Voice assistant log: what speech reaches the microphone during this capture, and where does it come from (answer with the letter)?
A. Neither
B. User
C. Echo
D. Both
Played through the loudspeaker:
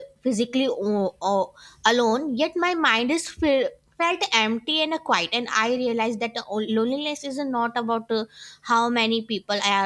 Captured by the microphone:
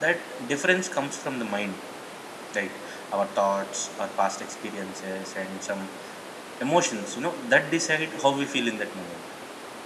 B